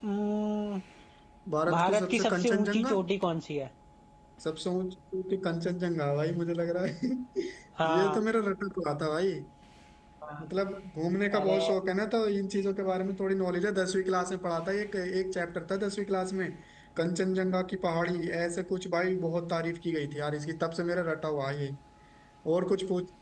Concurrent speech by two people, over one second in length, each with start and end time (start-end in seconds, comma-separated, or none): 1.7-2.9